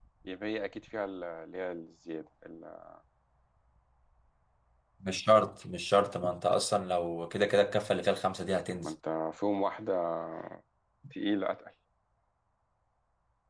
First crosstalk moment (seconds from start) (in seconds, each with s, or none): none